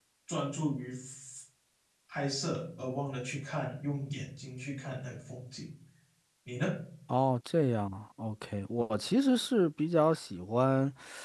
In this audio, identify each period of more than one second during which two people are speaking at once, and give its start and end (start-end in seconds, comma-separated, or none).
none